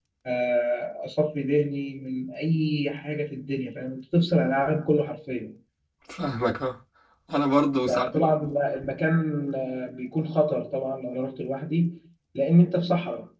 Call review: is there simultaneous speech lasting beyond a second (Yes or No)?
No